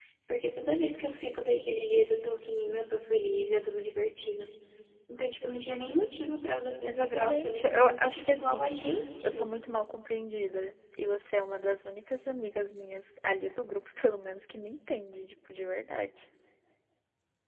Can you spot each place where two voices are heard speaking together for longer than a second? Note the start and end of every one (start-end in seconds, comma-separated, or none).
6.8-8.7